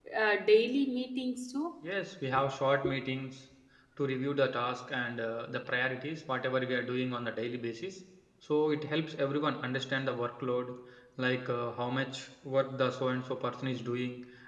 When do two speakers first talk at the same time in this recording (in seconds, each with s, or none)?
none